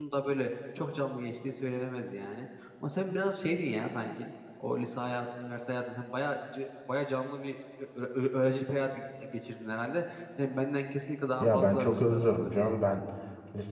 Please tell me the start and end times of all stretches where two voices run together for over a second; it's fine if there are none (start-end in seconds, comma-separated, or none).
11.4-12.7